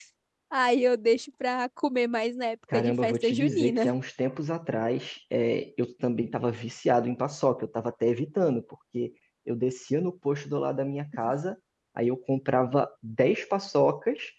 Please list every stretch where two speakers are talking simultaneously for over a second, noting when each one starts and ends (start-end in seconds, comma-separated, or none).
2.7-4.0